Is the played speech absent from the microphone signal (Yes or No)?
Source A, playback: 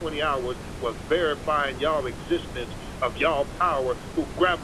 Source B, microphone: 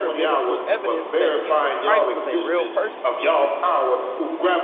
No